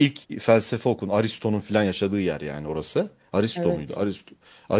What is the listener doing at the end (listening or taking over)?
listening